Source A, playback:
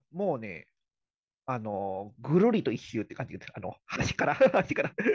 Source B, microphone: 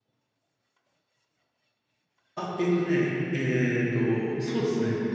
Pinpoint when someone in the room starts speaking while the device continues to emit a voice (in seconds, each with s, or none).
2.3 s